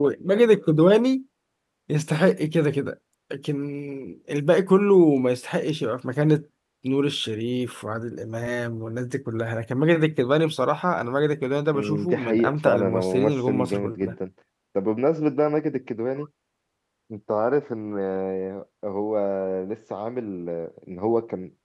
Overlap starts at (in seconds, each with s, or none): 11.7 s